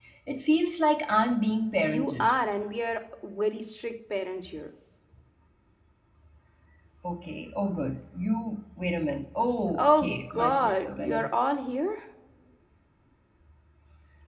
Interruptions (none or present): present